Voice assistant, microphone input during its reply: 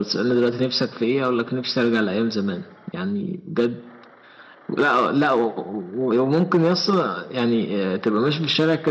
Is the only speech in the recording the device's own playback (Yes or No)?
Yes